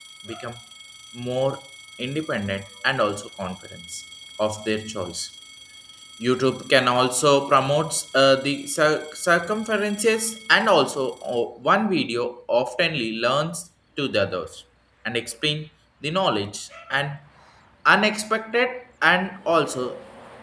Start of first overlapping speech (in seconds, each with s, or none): none